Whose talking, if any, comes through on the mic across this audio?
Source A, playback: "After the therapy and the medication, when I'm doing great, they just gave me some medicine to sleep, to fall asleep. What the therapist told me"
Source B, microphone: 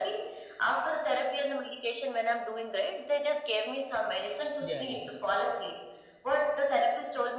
both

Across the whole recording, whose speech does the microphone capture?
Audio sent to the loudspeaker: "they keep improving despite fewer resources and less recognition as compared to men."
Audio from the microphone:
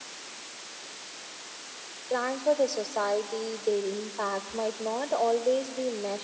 user only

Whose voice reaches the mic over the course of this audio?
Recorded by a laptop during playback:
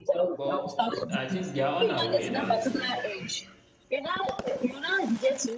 both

